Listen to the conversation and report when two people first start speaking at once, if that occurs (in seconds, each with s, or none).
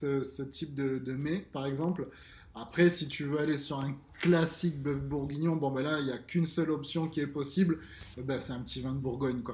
none